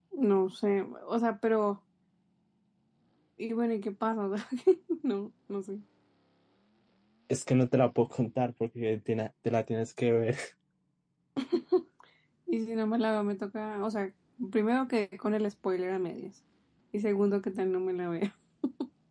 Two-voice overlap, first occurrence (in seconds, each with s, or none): none